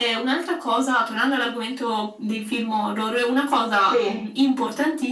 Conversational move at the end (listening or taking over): listening